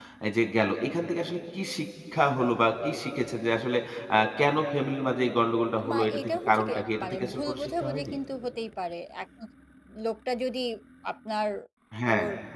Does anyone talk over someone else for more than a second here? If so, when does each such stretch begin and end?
5.9-8.1

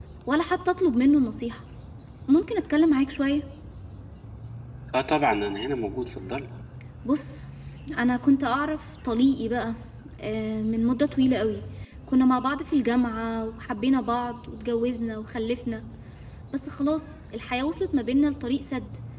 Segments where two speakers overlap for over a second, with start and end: none

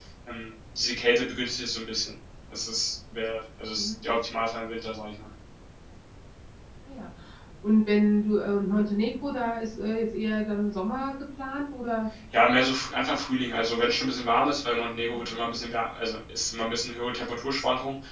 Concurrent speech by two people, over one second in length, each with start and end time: none

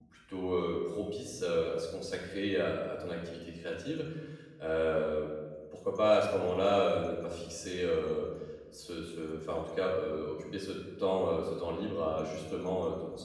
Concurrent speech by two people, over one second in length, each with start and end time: none

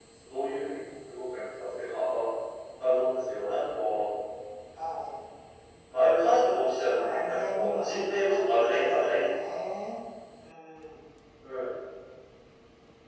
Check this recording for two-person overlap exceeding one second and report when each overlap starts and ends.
6.6-9.5

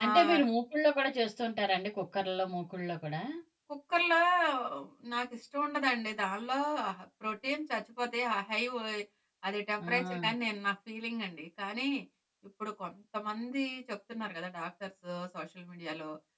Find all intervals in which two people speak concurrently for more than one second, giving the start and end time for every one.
none

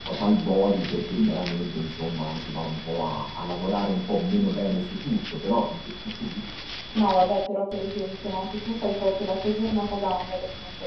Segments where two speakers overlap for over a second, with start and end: none

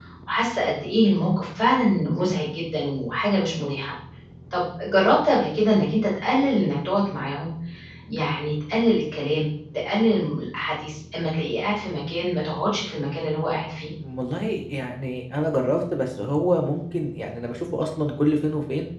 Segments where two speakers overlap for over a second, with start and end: none

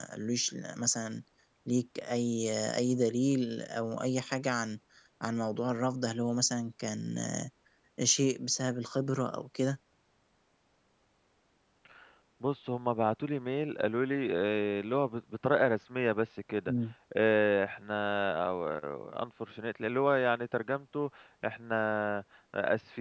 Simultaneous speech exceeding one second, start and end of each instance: none

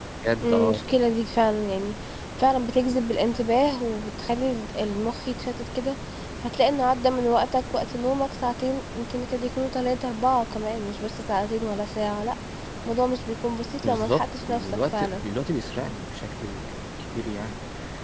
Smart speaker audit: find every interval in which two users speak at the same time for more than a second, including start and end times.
13.8-15.2

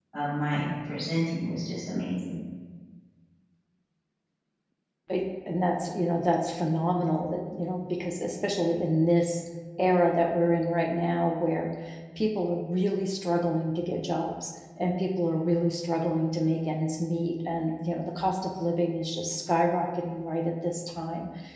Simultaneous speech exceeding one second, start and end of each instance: none

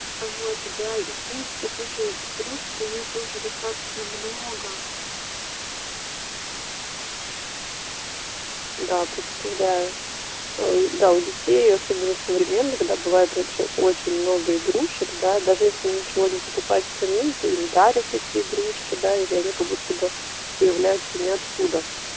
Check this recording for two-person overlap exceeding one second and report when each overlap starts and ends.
none

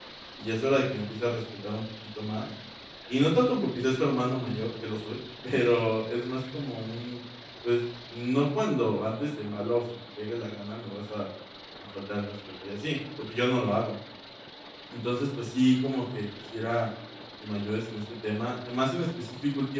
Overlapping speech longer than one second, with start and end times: none

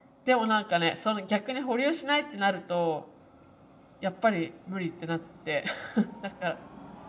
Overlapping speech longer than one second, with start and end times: none

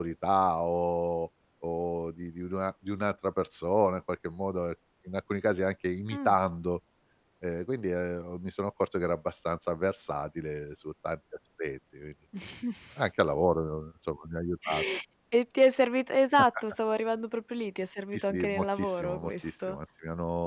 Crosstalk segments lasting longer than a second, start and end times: 18.1-19.8

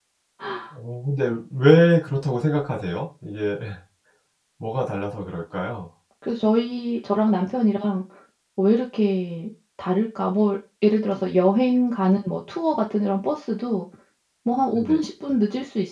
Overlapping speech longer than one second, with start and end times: none

